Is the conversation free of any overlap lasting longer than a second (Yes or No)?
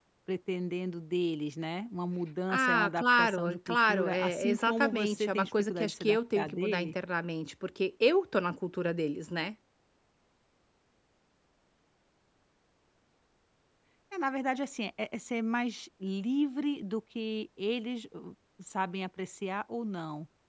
No